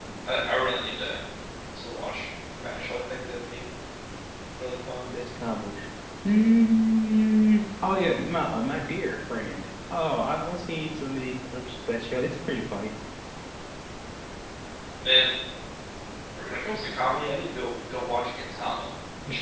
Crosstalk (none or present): none